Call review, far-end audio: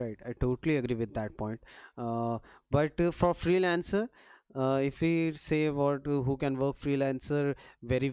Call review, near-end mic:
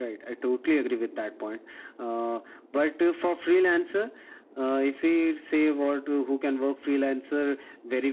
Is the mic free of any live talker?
Yes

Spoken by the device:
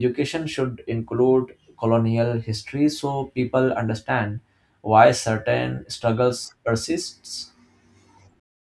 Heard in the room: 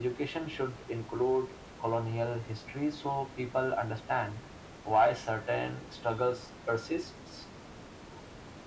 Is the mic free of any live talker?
Yes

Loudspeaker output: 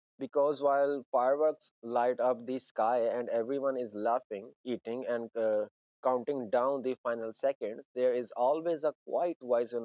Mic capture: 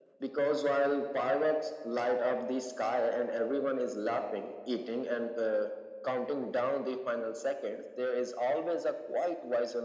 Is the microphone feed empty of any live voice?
Yes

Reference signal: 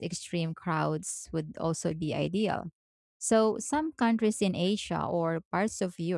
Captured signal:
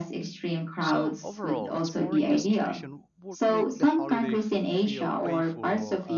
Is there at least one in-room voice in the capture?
Yes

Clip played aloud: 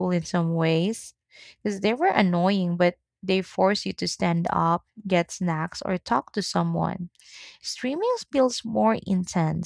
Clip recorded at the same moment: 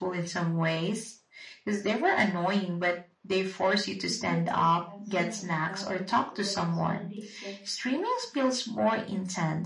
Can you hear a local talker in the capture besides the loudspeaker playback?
Yes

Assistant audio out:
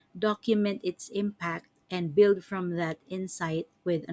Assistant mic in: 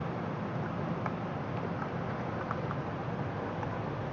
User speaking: No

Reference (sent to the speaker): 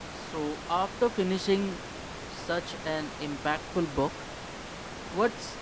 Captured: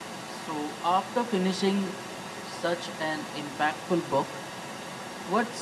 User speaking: No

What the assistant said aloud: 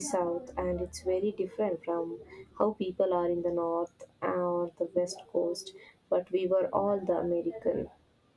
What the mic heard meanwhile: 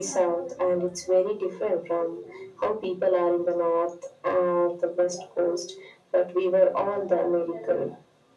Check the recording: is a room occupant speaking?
No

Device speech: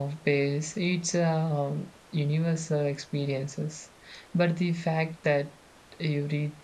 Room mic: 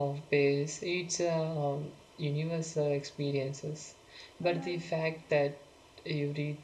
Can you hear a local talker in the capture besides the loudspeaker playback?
Yes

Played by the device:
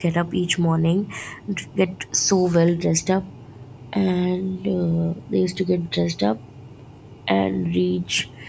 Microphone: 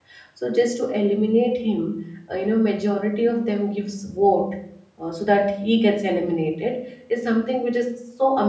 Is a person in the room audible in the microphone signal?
Yes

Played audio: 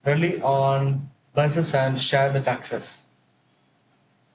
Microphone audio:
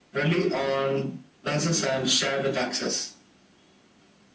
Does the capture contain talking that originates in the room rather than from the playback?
No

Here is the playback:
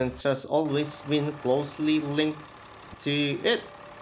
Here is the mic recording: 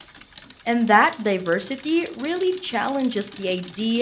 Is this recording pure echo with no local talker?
No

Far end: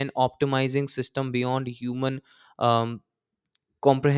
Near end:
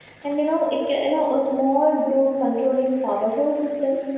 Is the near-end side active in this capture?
Yes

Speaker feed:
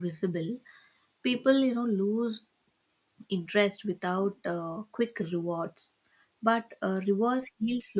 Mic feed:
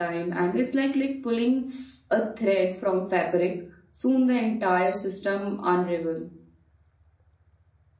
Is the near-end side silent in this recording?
No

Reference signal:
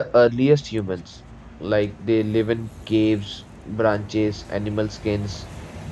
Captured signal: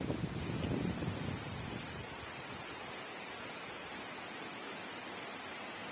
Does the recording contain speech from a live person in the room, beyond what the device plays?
No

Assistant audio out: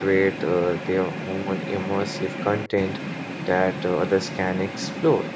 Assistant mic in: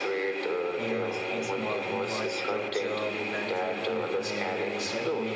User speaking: Yes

